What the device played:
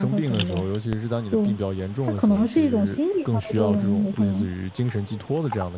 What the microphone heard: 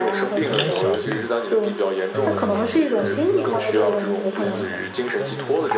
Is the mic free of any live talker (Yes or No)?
No